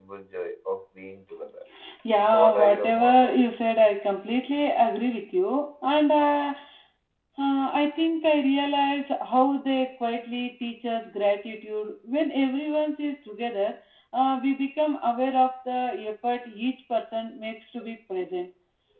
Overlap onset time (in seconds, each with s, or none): 2.2 s